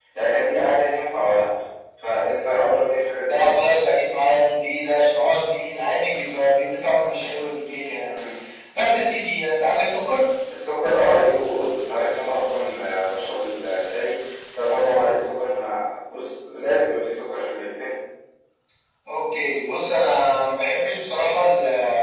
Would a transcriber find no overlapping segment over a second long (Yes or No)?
Yes